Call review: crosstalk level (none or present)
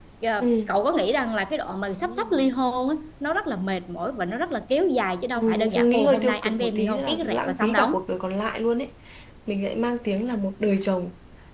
present